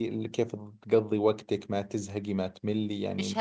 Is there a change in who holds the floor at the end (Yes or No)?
Yes